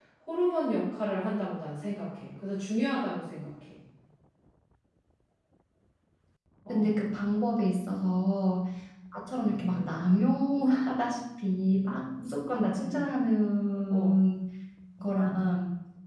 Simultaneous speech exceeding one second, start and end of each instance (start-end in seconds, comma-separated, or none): none